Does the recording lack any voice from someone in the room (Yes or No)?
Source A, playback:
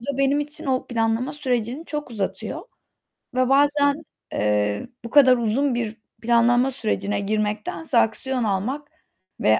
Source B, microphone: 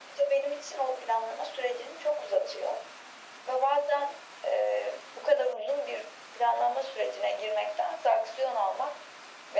Yes